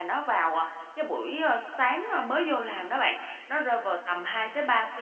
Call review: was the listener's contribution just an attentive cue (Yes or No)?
Yes